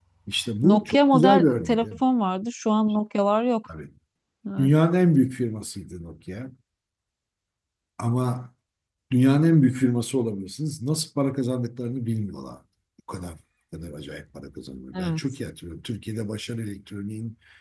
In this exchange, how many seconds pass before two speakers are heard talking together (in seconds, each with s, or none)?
0.6 s